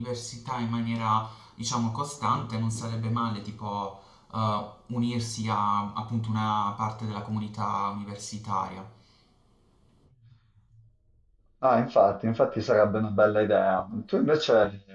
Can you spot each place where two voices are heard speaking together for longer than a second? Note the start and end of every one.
none

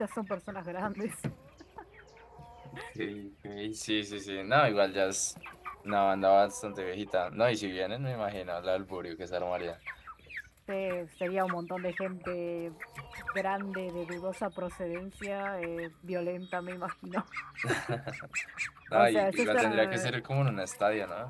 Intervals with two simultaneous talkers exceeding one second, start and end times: 18.9-20.1

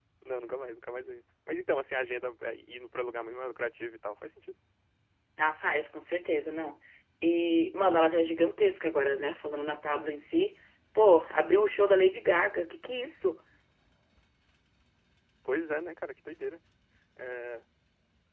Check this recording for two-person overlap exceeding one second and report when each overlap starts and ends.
none

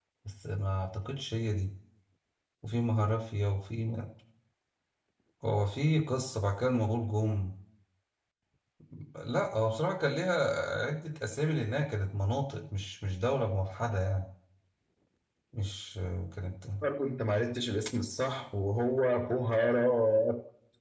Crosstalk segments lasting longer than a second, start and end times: none

